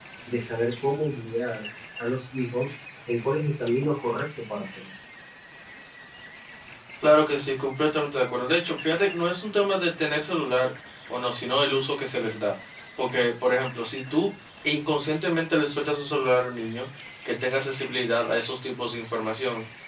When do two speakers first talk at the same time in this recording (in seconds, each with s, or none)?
none